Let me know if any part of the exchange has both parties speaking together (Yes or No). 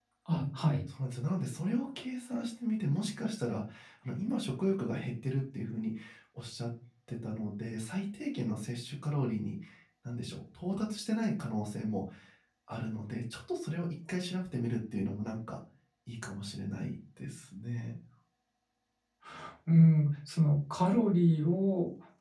No